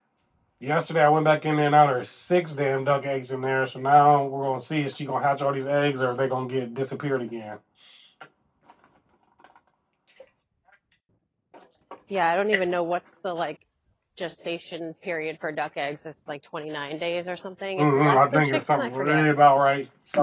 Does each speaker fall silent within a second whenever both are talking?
No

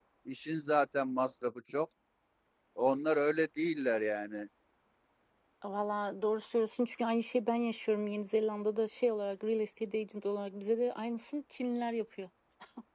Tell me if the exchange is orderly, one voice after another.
Yes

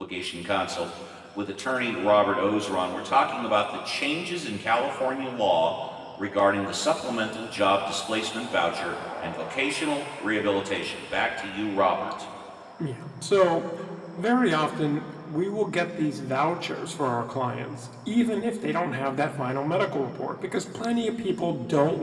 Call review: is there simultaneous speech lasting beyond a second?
No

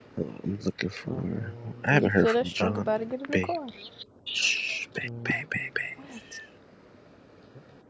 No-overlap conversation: No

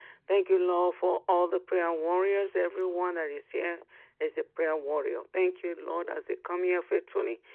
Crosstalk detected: No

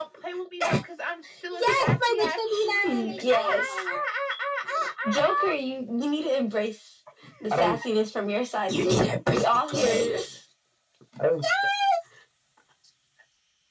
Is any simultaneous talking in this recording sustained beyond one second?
Yes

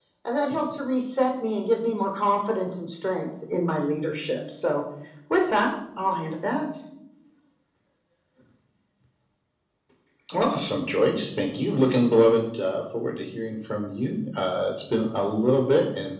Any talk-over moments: No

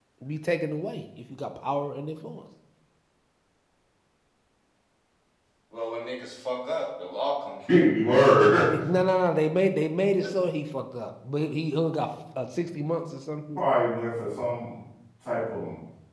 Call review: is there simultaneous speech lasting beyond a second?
No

